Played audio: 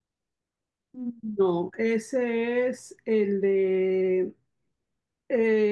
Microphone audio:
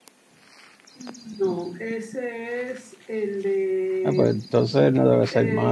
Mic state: both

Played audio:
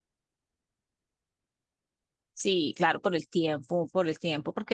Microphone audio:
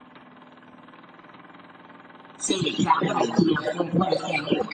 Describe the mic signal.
both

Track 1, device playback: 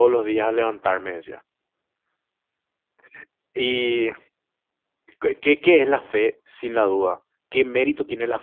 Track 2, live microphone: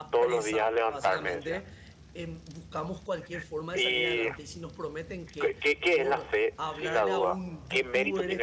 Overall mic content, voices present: both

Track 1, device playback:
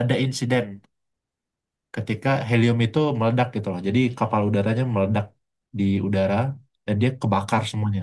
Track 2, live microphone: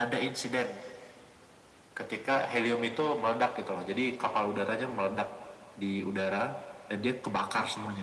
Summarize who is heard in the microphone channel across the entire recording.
echo only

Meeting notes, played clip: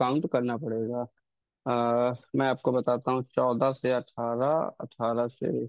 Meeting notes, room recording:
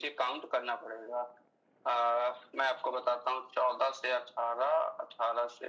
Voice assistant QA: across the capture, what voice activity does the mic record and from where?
echo only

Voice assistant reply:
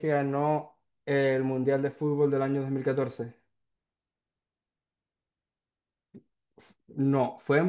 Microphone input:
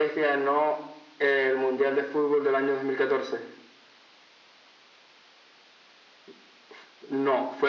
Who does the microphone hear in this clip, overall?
echo only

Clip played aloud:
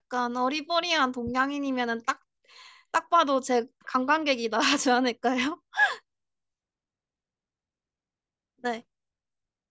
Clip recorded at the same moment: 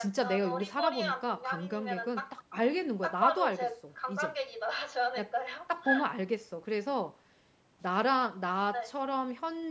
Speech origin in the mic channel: both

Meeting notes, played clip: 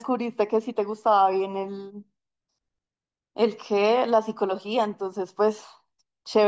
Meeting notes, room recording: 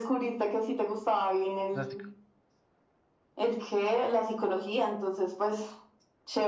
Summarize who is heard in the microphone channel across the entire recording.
both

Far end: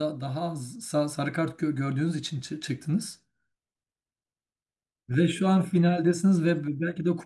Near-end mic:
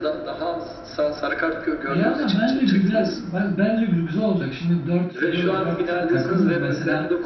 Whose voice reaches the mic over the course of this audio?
both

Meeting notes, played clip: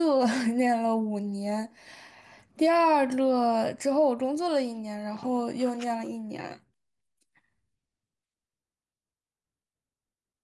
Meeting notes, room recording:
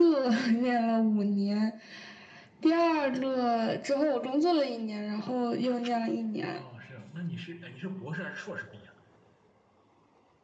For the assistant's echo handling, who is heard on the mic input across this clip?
both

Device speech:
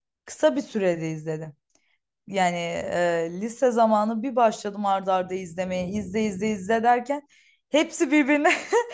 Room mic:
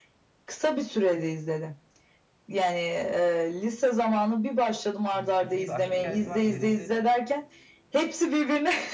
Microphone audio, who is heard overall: both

